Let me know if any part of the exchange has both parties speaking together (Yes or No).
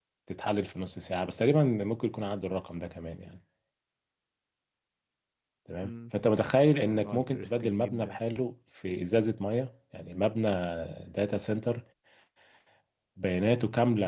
Yes